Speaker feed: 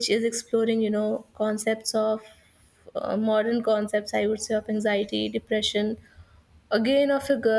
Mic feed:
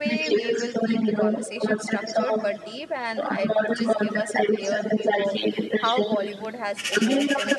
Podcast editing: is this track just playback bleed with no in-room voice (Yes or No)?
No